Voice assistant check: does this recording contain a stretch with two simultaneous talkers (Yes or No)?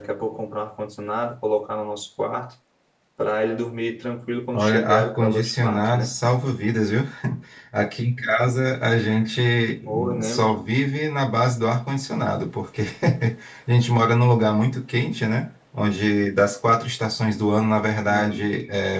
Yes